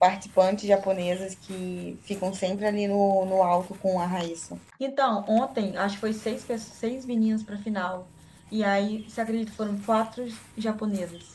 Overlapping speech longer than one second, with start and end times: none

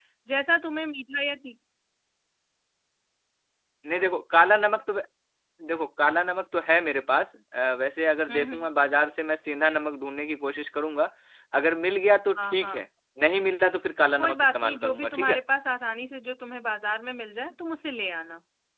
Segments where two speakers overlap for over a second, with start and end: 14.2-15.4

